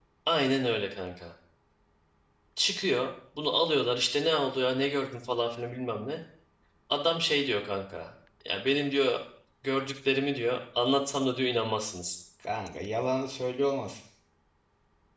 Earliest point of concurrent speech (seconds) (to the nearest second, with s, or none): none